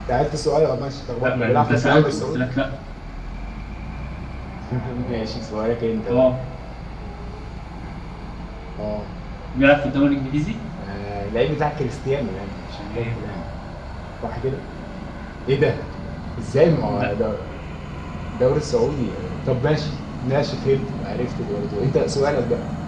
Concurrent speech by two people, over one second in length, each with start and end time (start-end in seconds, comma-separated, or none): 1.2-2.5